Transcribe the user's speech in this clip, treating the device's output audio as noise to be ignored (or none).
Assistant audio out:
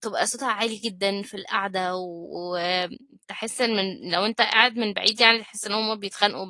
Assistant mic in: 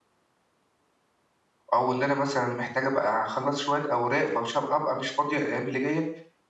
أو إن أنا مثلًا محتاجة بقى أخلّص شوية أوراق فمش هابقى أبقى مش فاضية الأيام اللي جاية،